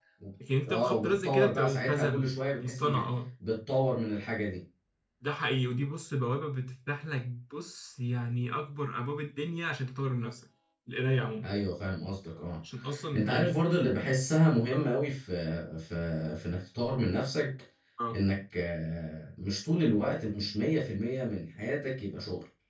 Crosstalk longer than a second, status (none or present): present